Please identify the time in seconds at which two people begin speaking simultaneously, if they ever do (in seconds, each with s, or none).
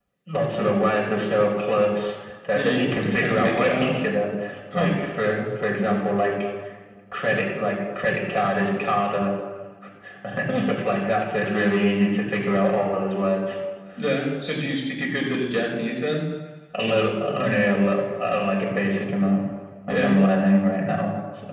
2.5 s